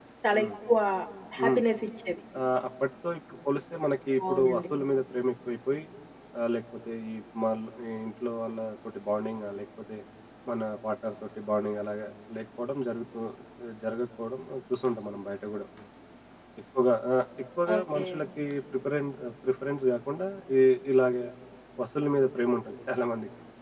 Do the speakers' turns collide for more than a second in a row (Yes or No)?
No